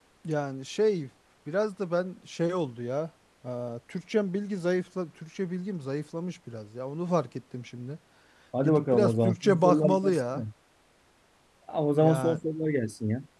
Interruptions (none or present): present